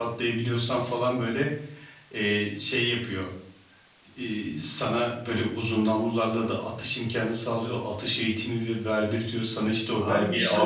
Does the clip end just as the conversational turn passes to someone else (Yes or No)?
Yes